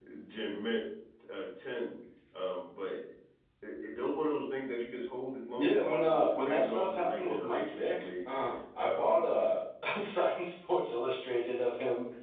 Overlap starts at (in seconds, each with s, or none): 5.6 s